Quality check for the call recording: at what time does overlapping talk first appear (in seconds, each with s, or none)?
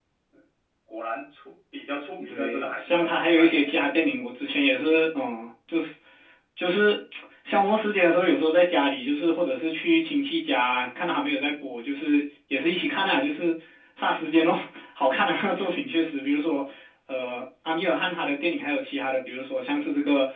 2.2 s